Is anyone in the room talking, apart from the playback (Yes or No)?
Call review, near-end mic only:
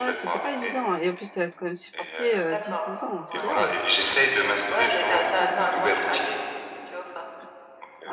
Yes